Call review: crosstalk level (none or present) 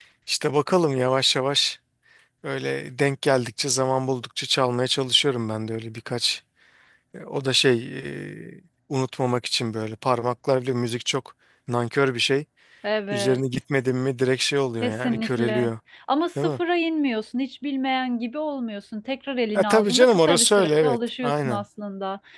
present